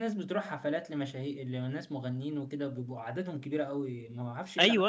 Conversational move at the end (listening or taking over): taking over